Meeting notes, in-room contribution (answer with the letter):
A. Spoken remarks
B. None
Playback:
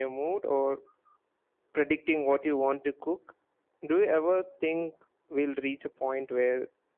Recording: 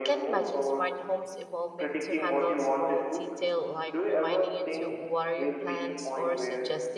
A